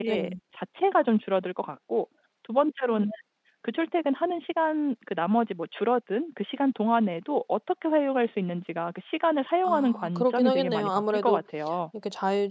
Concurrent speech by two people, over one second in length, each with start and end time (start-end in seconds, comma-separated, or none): 9.6-11.4